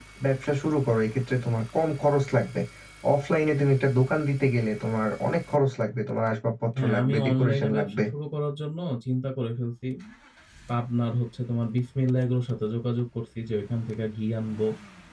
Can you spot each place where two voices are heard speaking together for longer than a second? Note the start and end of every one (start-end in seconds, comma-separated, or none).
6.8-8.0